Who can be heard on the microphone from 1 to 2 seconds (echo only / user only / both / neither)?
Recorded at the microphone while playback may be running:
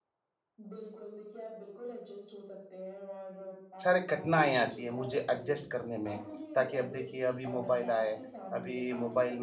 echo only